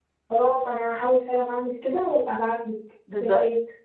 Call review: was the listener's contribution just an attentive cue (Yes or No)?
No